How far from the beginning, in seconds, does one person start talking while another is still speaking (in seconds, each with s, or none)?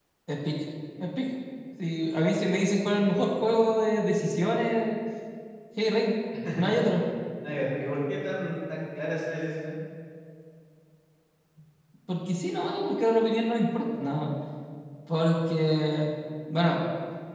none